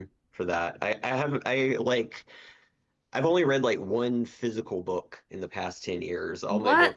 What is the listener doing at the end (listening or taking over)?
listening